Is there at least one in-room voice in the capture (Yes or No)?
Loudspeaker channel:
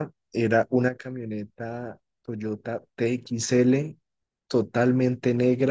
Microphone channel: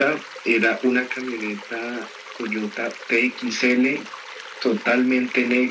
No